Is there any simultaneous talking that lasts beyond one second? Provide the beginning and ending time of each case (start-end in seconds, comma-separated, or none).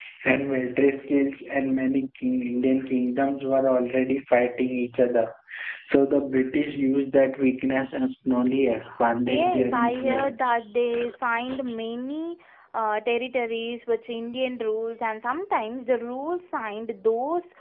9.3-10.6